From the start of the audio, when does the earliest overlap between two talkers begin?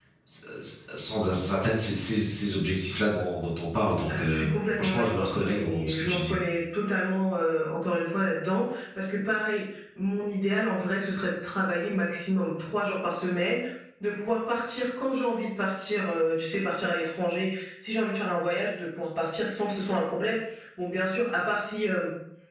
4.1 s

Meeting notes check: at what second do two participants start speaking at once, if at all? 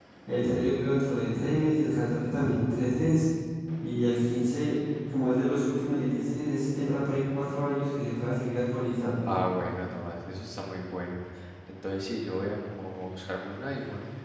none

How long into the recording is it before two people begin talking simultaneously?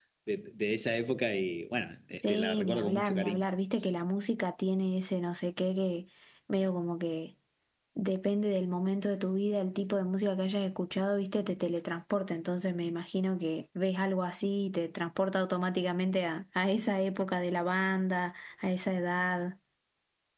2.1 s

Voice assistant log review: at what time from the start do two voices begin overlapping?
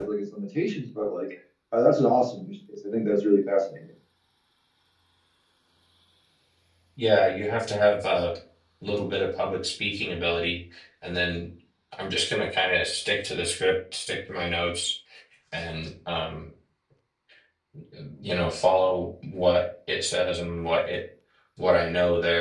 none

